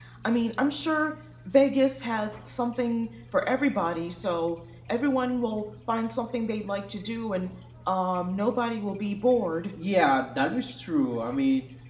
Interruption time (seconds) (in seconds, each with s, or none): none